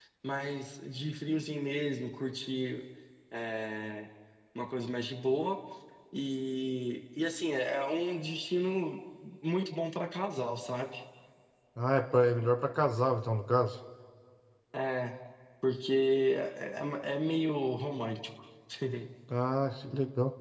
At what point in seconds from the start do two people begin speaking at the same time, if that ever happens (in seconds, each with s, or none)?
none